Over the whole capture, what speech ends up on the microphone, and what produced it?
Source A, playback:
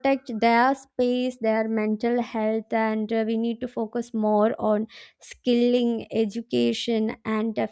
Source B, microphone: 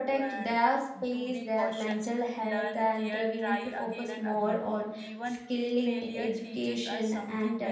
both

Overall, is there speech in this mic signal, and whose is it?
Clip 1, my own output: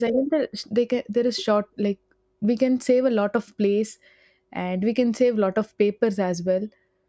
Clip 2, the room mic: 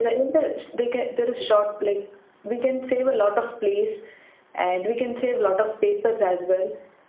echo only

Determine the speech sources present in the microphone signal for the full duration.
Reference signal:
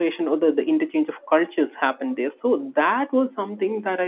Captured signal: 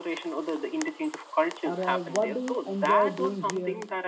both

